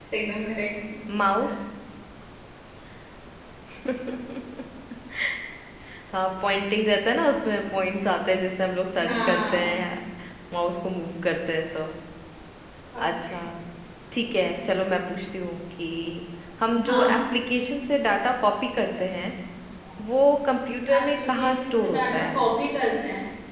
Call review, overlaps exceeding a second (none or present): present